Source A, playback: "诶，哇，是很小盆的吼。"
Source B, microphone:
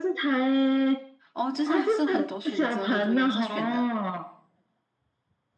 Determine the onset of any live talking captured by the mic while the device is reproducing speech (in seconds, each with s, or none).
1.3 s